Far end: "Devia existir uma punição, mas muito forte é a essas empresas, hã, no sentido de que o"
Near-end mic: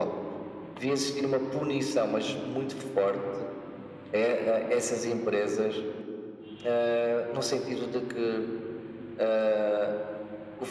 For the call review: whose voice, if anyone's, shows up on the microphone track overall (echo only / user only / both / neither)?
echo only